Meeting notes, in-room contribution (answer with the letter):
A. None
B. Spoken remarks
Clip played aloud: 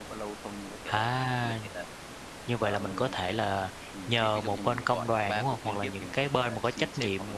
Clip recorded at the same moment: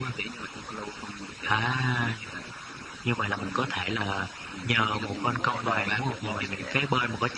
B